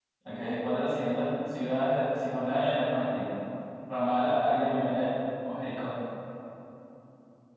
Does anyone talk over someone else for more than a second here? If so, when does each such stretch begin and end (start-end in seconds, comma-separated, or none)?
none